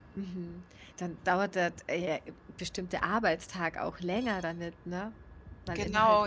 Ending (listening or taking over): taking over